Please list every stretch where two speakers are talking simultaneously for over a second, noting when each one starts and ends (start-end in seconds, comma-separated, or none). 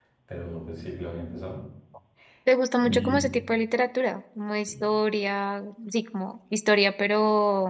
none